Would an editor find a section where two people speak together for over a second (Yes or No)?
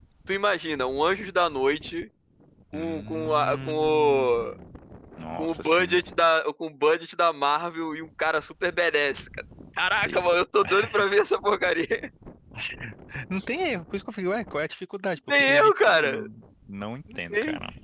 Yes